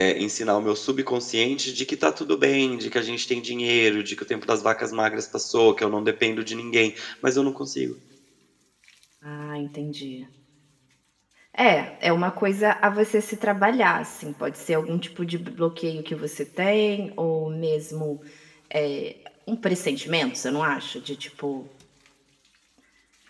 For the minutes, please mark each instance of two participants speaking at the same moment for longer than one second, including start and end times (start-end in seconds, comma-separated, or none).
none